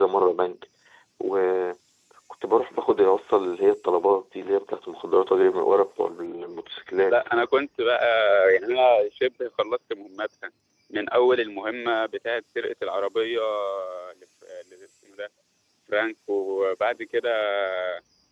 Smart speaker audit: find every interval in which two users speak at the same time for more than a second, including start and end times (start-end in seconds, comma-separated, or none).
none